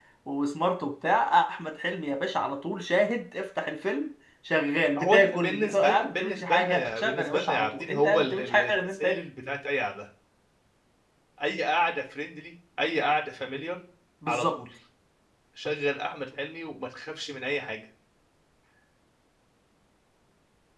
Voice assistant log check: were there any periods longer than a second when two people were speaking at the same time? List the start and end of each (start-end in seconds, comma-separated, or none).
5.0-9.2